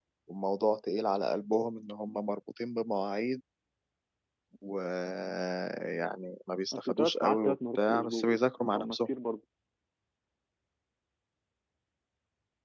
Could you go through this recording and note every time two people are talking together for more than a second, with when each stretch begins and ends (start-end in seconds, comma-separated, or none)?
6.7-8.3